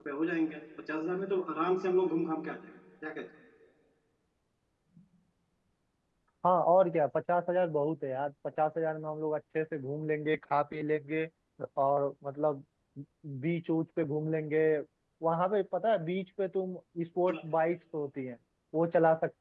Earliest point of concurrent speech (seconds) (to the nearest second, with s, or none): none